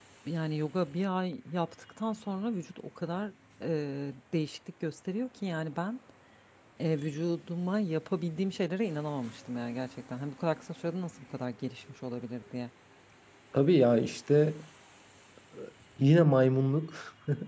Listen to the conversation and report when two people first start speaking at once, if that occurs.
none

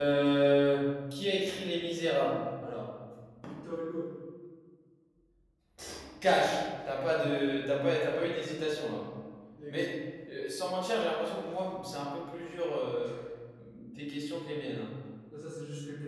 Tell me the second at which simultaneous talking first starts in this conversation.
none

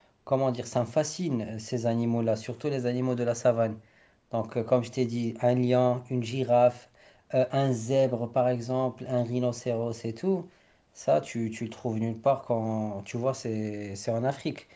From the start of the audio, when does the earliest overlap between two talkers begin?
none

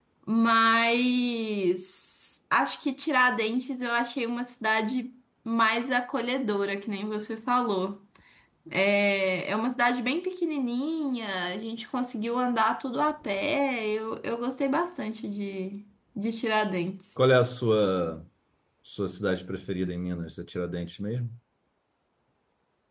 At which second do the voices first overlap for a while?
none

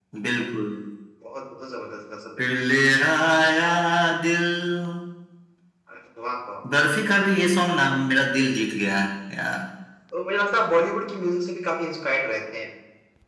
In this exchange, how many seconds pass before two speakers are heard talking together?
none

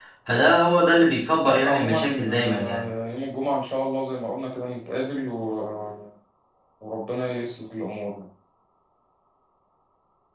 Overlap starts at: 1.4 s

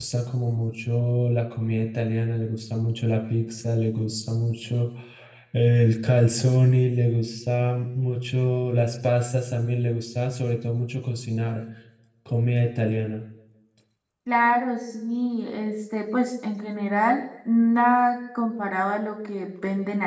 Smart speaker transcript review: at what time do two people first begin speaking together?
none

